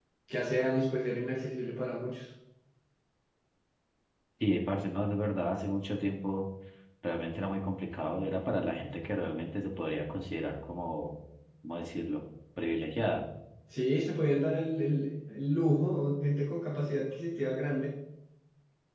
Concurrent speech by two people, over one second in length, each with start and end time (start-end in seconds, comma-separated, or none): none